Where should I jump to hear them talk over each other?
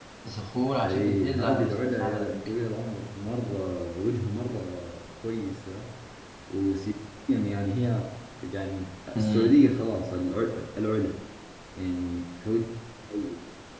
0.8 s

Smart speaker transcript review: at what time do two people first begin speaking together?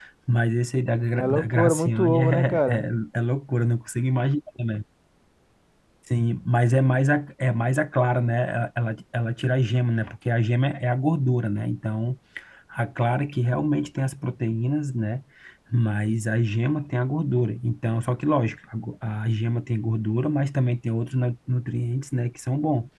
1.2 s

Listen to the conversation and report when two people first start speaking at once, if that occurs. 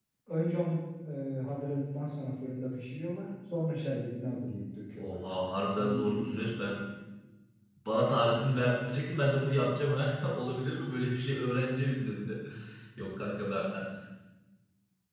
5.0 s

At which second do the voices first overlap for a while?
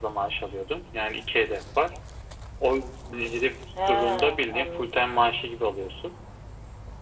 3.8 s

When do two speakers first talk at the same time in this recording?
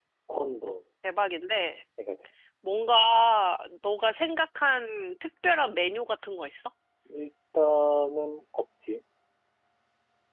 none

